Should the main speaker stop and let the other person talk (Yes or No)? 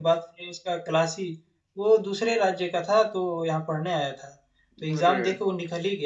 No